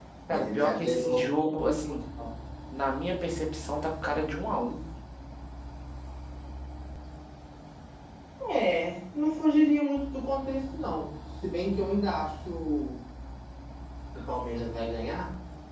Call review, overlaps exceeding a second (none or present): present